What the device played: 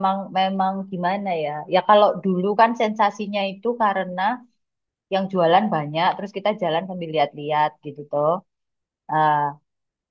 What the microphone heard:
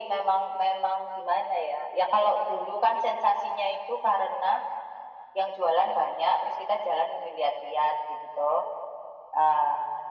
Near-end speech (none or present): none